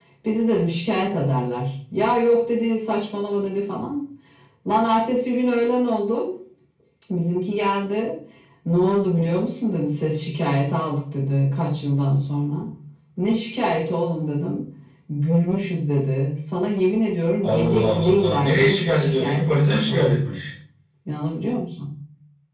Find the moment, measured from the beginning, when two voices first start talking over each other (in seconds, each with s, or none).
17.4 s